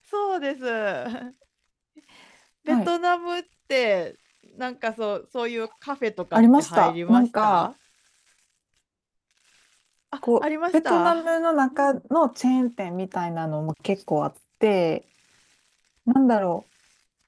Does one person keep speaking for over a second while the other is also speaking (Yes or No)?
Yes